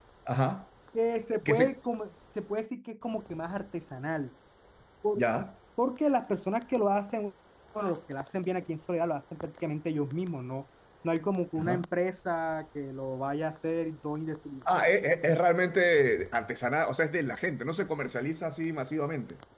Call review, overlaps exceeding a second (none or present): none